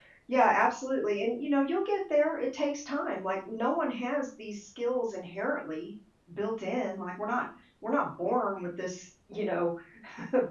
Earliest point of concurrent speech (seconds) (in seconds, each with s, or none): none